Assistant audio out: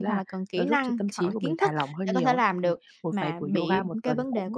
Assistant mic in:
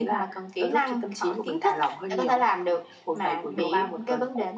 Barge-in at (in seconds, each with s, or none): none